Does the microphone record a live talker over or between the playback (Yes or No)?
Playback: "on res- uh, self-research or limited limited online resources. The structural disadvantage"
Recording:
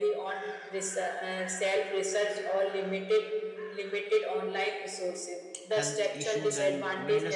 Yes